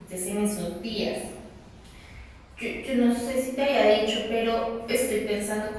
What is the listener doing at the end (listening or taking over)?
listening